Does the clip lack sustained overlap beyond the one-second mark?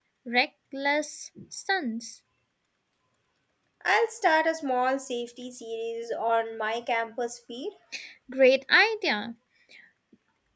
Yes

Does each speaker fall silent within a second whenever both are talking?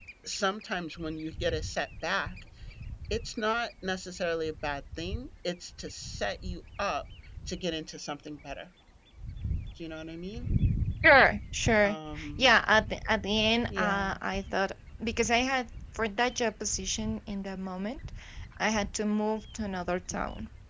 Yes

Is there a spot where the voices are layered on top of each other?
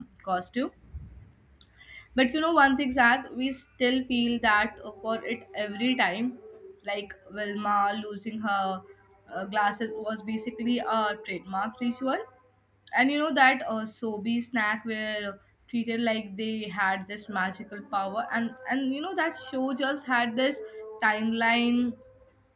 No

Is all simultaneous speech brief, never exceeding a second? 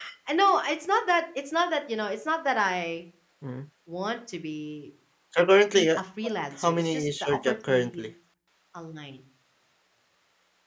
No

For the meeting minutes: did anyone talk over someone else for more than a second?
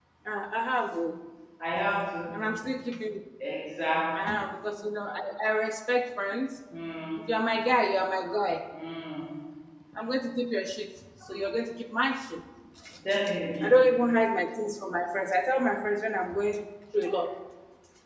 No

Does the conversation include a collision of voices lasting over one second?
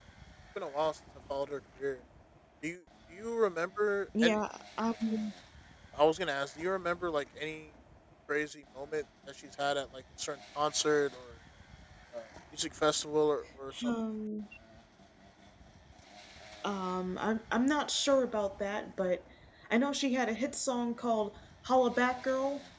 No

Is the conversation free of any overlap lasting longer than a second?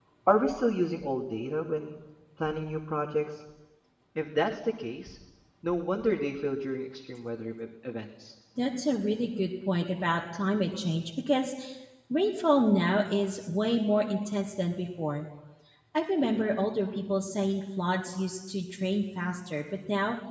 Yes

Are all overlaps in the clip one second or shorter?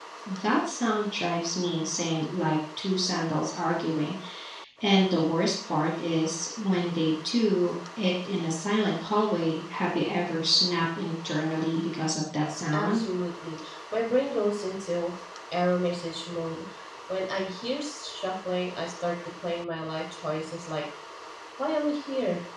Yes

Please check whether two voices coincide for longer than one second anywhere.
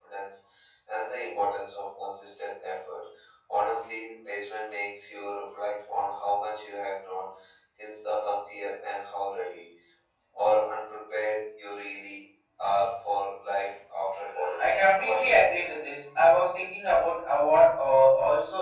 Yes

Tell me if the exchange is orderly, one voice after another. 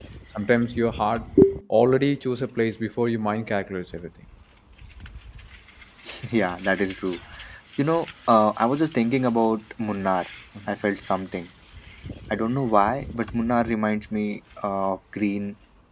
Yes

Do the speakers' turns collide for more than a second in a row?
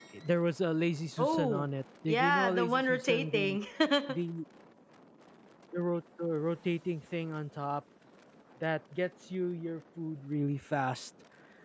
Yes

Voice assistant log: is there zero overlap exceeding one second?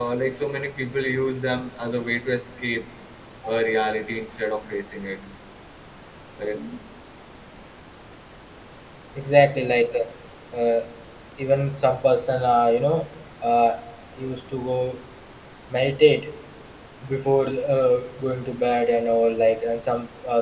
Yes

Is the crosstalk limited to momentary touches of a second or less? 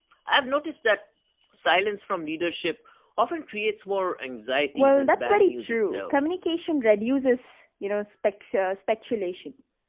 No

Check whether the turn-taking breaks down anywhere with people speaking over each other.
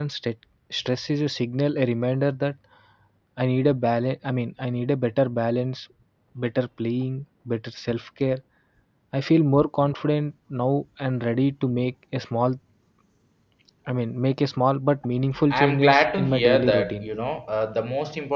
Yes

